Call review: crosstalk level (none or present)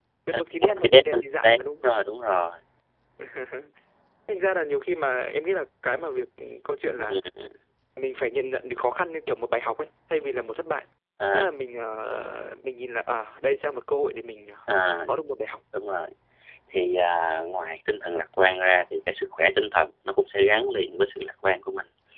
present